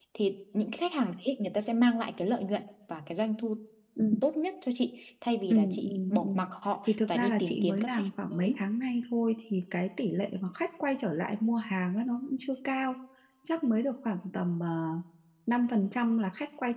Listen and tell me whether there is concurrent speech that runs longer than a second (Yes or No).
Yes